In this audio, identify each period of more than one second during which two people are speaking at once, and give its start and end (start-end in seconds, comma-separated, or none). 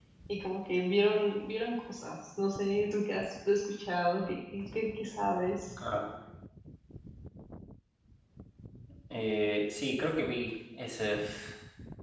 none